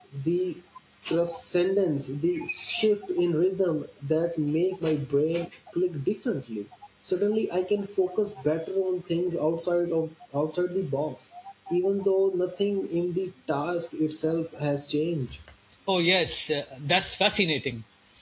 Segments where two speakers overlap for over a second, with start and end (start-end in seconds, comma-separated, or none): none